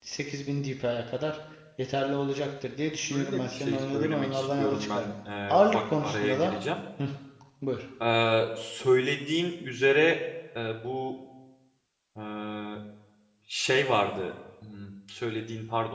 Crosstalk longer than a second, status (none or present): present